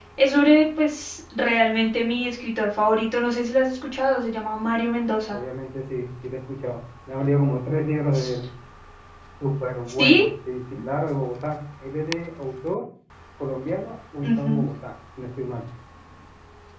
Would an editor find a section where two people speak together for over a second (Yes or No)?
No